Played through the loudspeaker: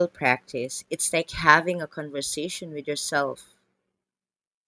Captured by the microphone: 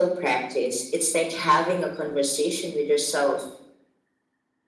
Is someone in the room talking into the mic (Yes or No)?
No